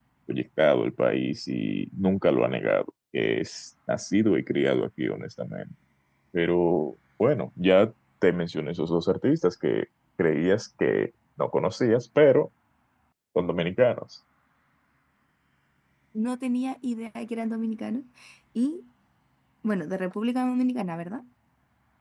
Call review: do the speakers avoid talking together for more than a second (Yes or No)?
Yes